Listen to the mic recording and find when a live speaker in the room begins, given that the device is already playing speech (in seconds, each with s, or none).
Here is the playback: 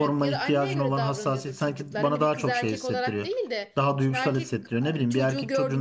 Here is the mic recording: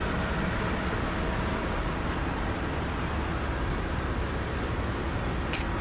none